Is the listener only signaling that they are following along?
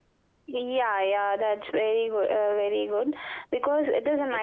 Yes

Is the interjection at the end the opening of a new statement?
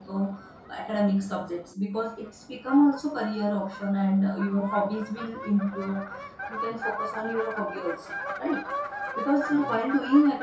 No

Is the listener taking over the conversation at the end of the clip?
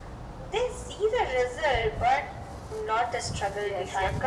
Yes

